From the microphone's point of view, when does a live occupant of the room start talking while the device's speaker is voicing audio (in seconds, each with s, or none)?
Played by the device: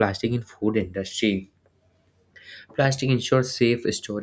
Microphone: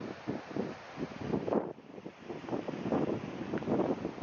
none